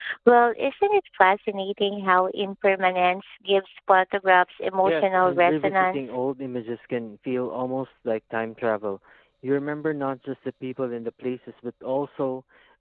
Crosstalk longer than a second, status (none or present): present